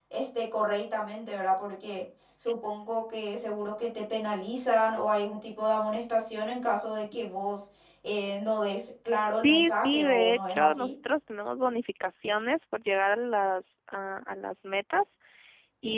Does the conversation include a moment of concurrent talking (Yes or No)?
Yes